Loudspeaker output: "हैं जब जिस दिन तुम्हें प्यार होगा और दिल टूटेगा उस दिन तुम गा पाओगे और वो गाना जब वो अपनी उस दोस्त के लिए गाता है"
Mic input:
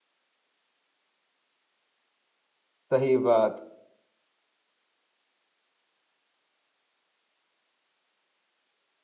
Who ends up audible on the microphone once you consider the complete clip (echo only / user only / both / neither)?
user only